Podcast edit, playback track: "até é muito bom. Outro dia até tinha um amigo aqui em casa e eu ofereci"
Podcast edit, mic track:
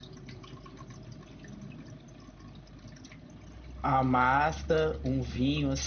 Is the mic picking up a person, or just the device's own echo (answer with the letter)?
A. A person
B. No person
A